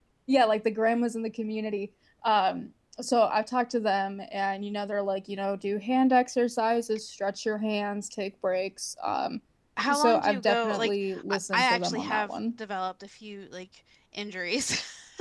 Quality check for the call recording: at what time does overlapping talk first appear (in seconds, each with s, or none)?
9.9 s